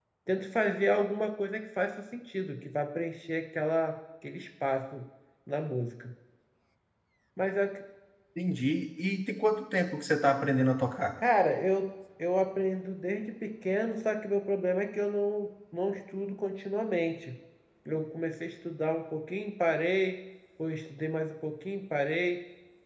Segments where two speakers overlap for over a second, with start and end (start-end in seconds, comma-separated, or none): none